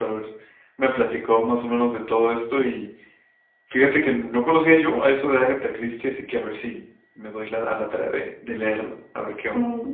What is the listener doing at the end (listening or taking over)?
taking over